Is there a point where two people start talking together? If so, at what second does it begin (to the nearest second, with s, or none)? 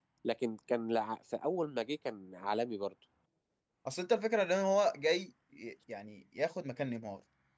none